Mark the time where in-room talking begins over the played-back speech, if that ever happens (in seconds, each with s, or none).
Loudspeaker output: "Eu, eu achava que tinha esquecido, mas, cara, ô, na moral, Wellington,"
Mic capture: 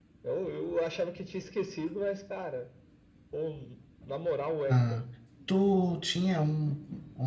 4.7 s